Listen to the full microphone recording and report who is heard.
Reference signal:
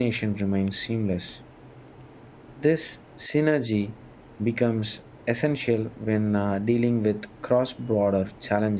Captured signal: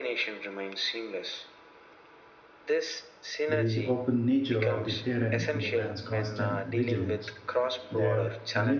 both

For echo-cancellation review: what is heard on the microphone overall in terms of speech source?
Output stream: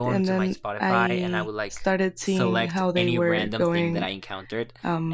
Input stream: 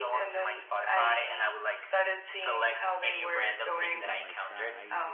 both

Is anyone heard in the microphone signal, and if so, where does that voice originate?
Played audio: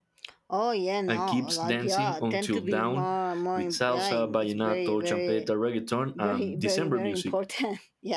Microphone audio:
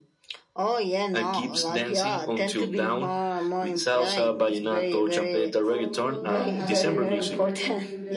both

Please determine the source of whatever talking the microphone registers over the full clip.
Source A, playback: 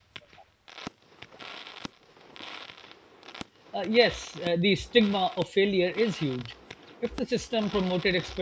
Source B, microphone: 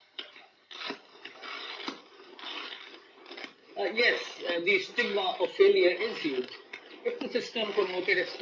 echo only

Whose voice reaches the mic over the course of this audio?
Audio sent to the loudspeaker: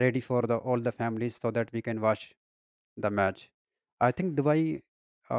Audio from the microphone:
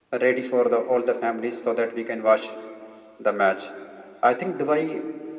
echo only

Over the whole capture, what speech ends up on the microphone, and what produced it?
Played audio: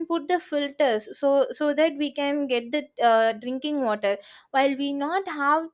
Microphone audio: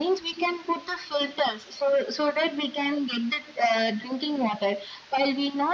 echo only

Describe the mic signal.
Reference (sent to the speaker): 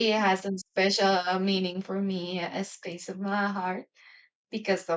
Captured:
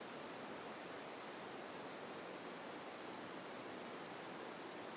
neither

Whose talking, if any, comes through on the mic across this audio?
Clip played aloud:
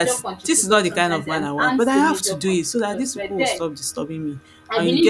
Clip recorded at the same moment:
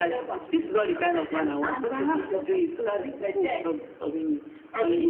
echo only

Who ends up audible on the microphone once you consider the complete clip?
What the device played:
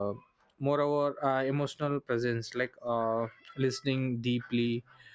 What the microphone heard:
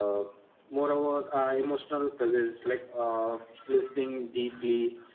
echo only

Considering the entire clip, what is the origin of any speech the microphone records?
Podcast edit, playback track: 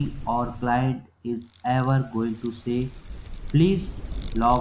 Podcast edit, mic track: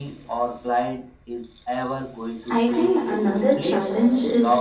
both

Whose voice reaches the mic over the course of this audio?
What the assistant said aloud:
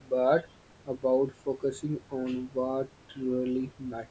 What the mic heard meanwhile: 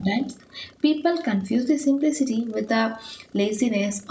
user only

